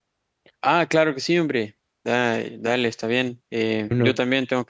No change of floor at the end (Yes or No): Yes